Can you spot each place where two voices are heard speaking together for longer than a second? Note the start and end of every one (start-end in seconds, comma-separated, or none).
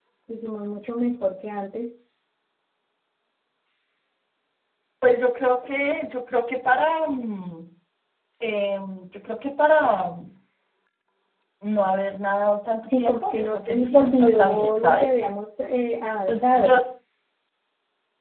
12.9-15.1